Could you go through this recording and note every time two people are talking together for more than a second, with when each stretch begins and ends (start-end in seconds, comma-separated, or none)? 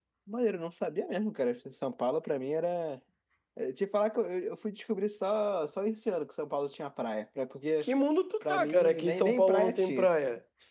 8.5-10.1